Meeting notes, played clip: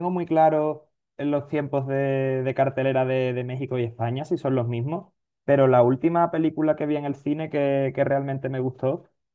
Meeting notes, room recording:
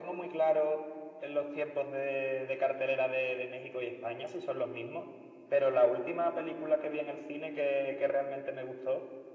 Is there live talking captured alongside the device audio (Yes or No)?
No